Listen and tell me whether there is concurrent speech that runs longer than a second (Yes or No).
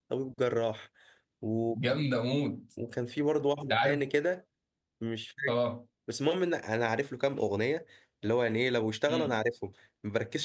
No